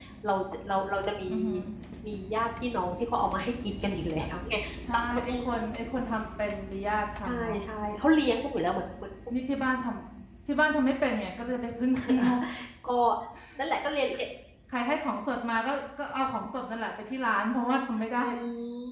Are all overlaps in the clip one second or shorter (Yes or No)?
Yes